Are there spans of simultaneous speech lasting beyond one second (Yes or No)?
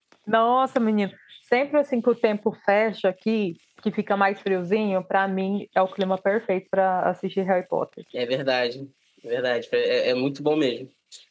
No